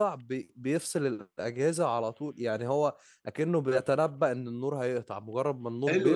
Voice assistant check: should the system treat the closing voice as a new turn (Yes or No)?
Yes